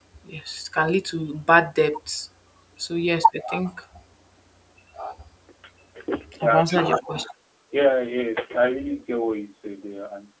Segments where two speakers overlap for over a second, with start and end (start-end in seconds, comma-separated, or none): none